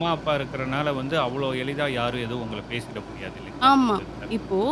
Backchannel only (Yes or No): No